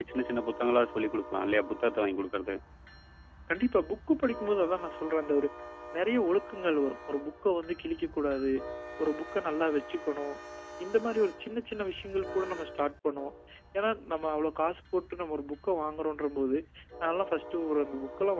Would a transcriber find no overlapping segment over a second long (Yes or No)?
Yes